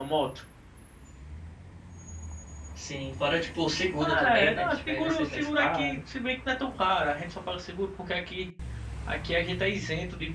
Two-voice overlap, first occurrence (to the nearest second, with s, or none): 4 s